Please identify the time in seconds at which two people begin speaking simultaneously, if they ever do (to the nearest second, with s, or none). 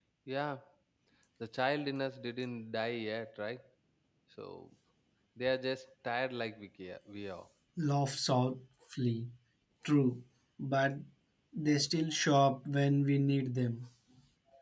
none